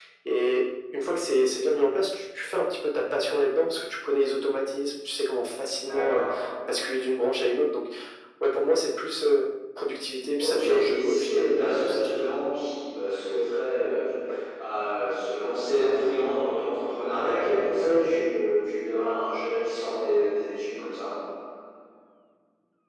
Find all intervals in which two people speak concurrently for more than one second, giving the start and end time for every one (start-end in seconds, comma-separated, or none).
10.4-12.3